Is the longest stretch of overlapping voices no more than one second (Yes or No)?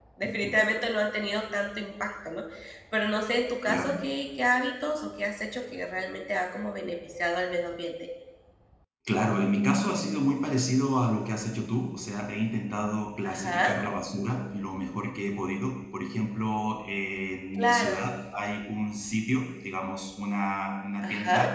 Yes